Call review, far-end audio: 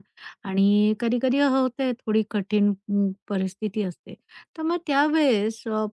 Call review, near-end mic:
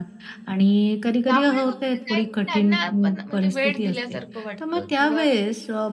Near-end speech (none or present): present